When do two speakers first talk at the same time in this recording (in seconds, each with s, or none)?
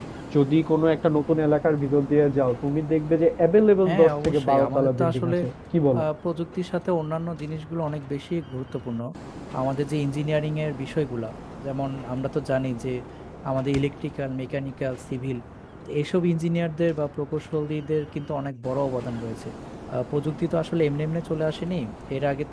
3.9 s